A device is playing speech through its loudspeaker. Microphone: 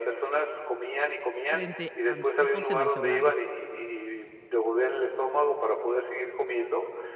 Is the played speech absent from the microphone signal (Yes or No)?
No